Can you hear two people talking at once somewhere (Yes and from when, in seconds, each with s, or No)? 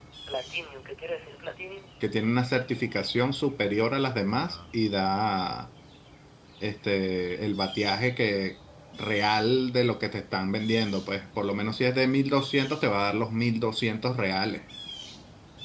No